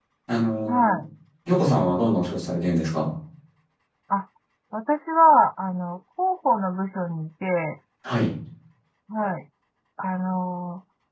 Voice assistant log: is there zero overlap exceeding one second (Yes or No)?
Yes